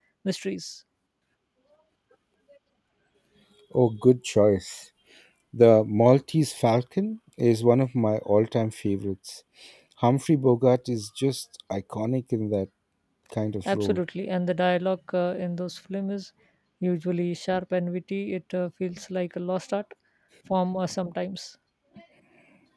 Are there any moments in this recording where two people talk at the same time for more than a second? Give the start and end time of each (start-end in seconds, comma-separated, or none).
none